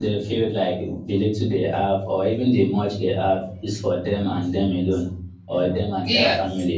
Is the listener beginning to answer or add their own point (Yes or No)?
No